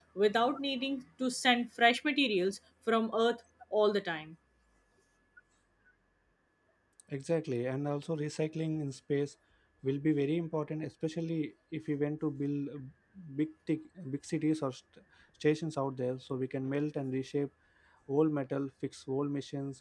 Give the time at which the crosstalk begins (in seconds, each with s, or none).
none